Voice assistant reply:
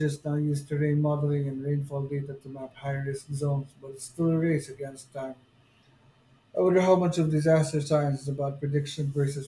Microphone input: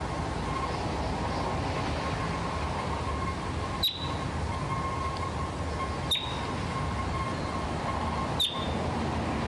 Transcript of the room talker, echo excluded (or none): none